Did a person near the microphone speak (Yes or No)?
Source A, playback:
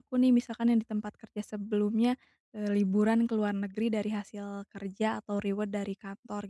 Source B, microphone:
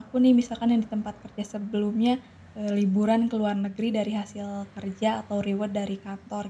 No